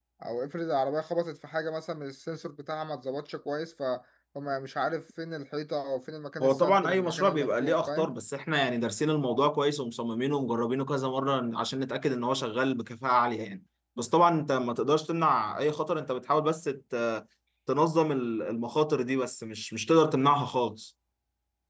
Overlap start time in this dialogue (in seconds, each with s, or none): 6.4 s